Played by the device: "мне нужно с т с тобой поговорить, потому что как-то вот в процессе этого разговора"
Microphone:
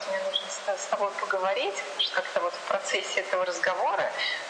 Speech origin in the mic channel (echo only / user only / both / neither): echo only